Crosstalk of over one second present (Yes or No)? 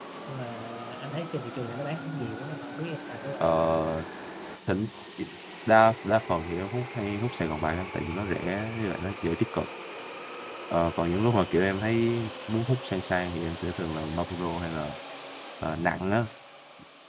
No